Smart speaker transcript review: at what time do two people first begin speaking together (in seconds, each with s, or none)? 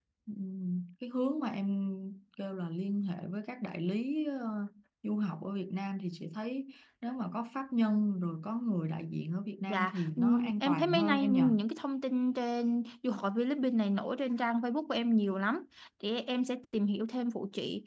9.7 s